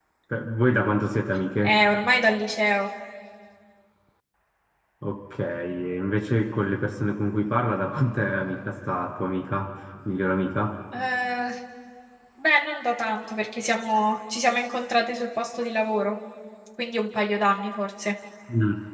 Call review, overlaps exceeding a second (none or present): none